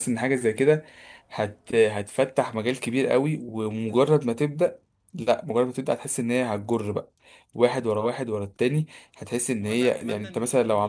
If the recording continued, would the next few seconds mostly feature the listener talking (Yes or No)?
Yes